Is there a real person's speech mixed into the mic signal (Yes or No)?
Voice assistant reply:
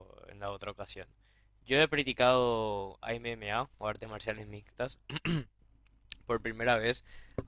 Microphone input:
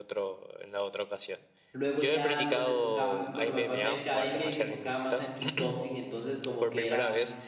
Yes